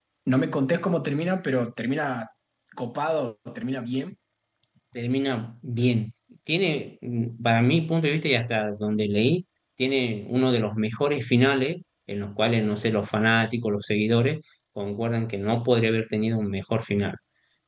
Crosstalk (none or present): none